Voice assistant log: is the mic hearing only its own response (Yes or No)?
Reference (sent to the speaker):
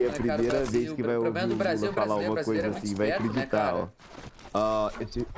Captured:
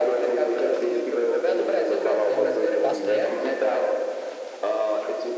No